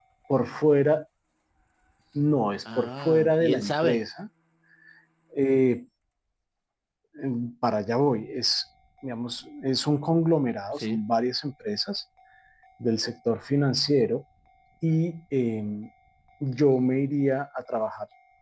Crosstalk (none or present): present